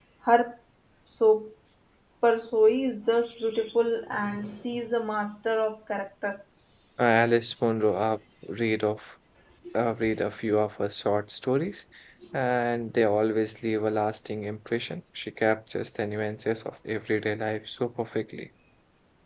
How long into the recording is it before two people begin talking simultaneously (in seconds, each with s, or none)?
none